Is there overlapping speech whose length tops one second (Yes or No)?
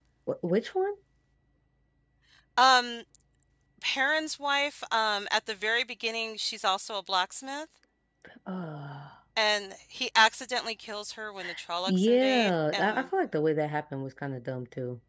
Yes